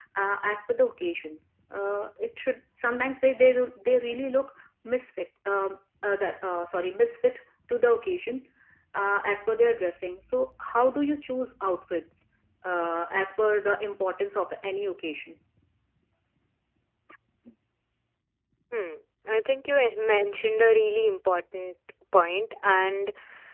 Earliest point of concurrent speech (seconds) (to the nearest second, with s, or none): none